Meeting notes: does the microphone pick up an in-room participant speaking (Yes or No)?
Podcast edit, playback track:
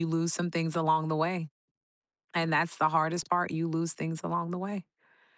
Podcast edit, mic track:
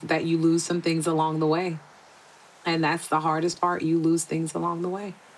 No